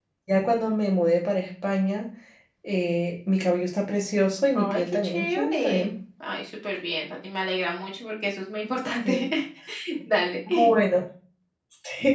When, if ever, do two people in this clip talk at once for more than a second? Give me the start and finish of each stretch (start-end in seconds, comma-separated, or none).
4.6-5.9